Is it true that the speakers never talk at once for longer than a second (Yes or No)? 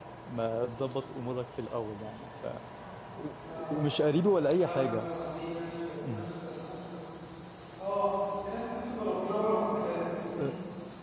Yes